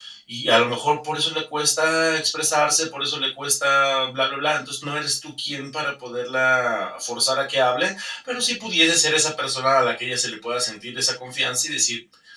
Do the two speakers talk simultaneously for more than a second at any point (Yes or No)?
No